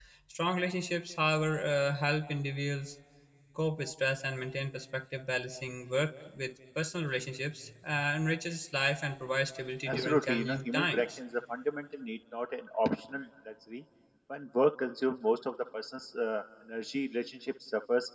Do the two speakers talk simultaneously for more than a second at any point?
Yes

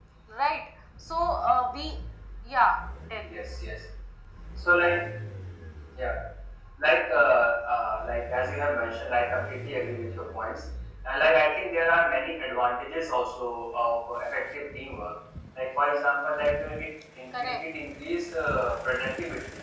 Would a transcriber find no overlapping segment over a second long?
Yes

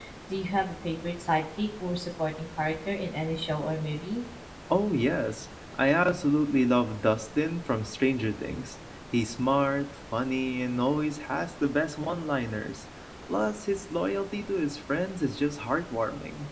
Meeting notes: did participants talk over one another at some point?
No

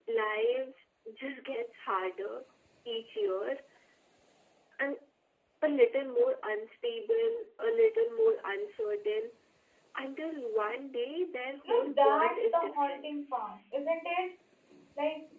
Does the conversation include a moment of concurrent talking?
Yes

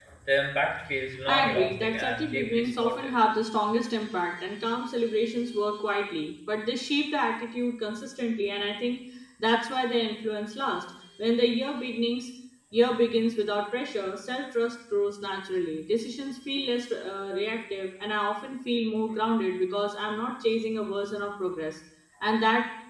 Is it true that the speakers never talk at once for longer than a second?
No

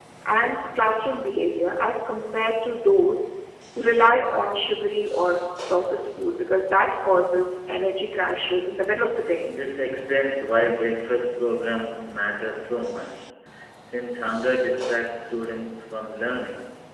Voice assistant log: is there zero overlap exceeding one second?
Yes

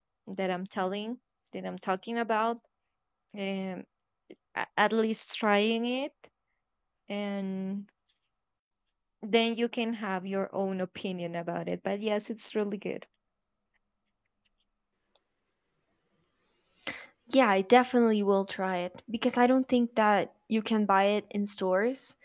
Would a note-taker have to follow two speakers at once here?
No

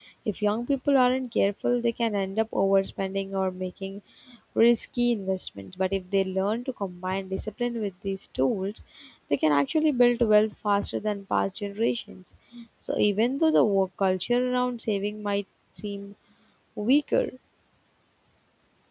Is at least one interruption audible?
No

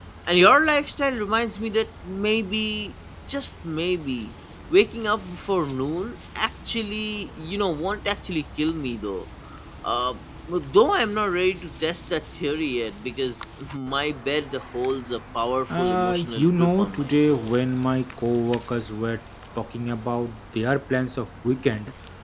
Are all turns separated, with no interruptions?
No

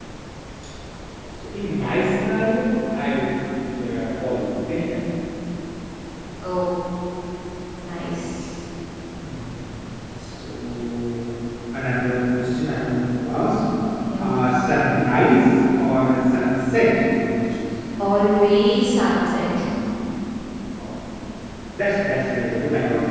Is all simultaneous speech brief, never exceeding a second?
Yes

